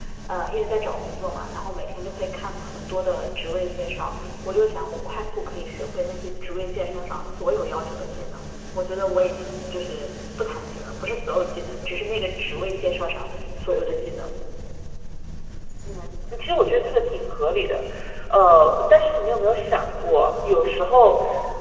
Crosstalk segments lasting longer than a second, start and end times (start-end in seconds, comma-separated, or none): none